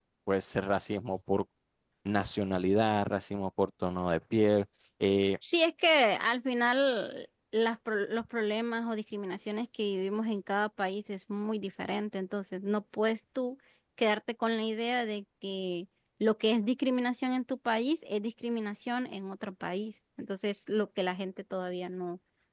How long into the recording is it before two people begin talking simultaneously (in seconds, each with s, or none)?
none